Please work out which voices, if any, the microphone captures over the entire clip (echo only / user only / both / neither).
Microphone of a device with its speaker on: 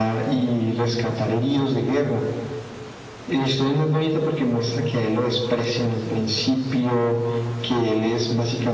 echo only